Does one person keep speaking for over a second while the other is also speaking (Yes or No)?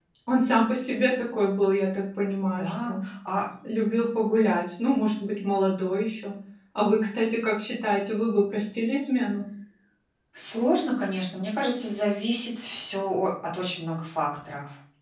No